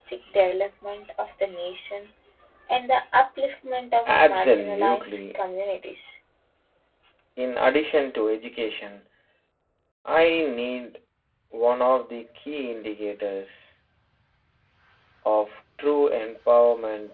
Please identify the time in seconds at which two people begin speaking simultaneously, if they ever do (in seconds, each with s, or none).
4.0 s